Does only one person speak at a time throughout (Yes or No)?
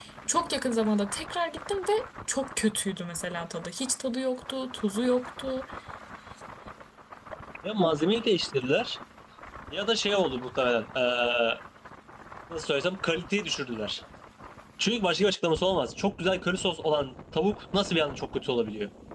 Yes